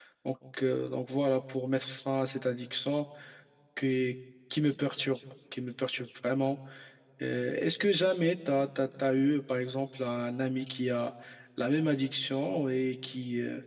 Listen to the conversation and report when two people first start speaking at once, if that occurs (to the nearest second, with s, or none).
none